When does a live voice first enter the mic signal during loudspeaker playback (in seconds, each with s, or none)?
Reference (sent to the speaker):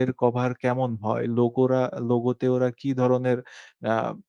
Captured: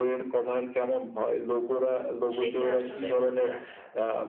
2.4 s